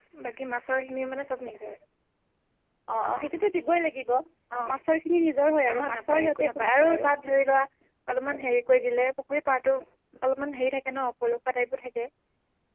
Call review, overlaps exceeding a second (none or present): present